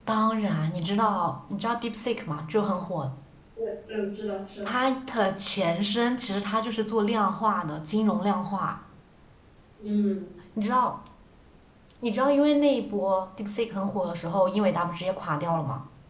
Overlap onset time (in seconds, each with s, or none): none